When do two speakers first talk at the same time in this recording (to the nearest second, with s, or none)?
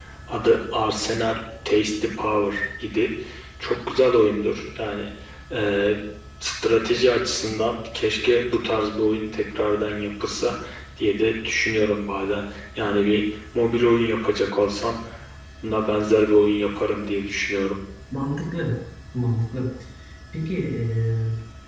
none